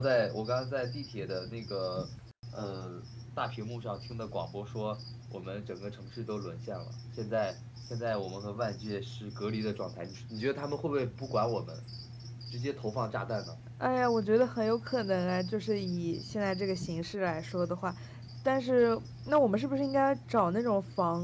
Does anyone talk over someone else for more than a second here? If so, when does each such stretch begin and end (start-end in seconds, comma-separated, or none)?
none